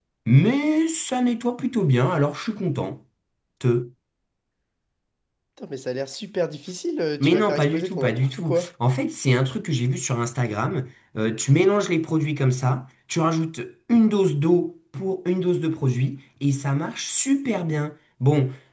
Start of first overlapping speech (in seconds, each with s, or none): 7.2 s